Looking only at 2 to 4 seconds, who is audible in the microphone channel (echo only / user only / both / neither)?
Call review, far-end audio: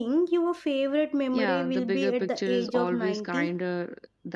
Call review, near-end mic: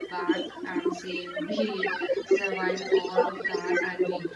both